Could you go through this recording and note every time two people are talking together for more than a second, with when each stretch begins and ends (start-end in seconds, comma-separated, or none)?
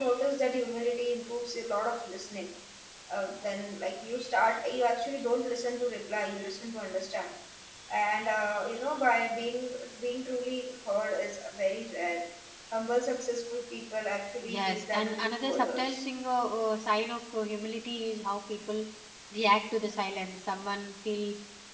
14.5-16.0